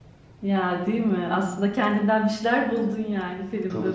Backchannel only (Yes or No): No